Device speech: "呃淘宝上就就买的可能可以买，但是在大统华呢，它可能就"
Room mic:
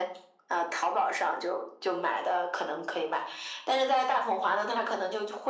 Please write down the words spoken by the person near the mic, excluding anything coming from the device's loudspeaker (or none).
none